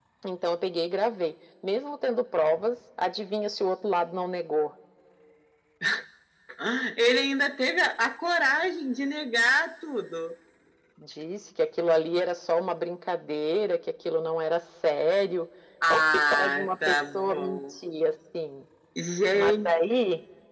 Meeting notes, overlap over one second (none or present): present